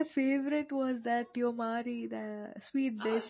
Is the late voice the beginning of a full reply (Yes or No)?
Yes